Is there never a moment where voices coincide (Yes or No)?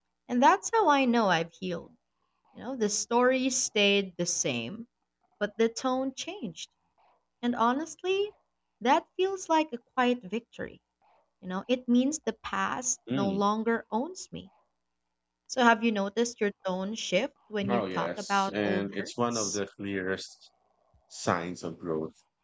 No